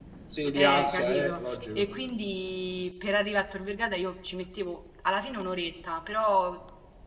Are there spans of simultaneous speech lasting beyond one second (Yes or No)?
Yes